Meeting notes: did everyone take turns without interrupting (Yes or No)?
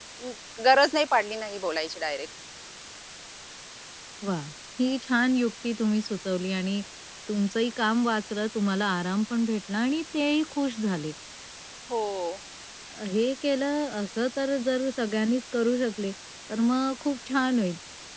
Yes